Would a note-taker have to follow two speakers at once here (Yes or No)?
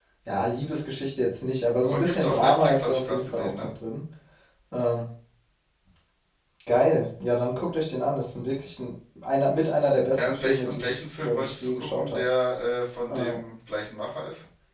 Yes